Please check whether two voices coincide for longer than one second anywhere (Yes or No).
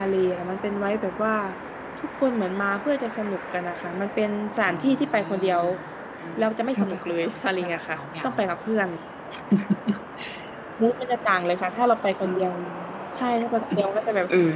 Yes